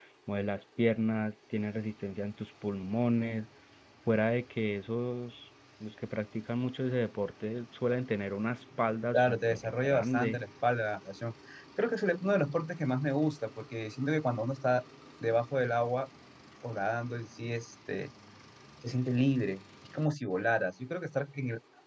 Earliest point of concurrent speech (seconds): 9.1 s

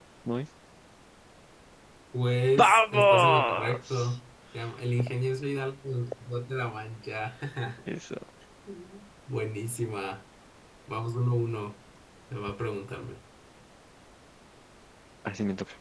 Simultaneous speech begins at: 2.6 s

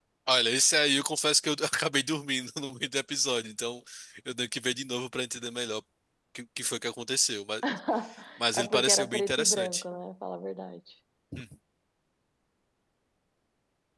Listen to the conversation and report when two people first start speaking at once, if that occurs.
8.5 s

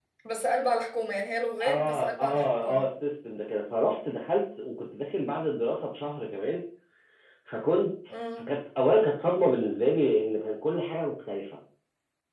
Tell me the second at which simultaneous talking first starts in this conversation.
1.6 s

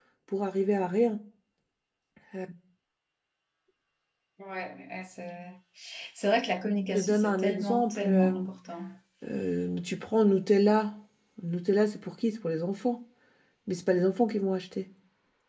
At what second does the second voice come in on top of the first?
6.9 s

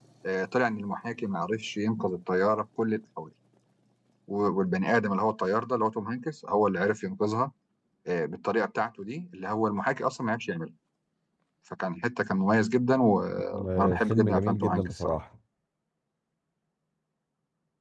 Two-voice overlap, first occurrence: 13.8 s

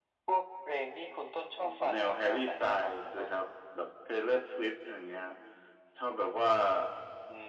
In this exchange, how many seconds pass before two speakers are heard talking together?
1.6 s

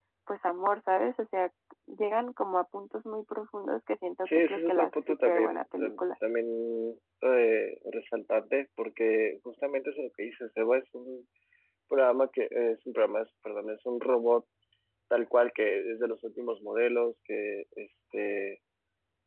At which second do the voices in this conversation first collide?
4.2 s

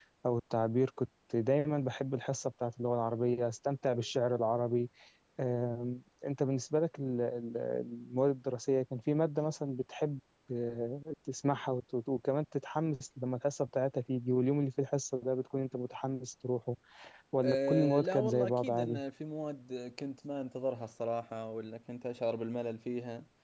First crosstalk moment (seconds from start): 17.4 s

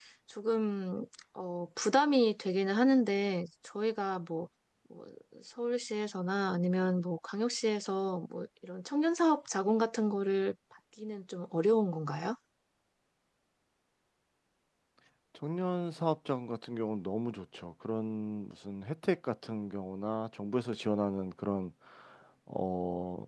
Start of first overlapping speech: none

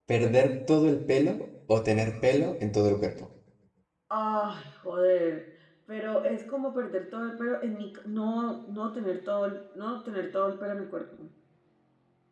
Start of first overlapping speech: none

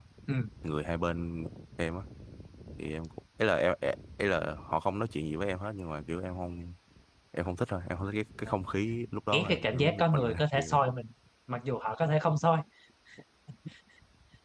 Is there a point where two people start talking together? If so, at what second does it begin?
9.3 s

